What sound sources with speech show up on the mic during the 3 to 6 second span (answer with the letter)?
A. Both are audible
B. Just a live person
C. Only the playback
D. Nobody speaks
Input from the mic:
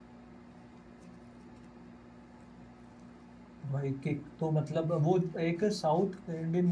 B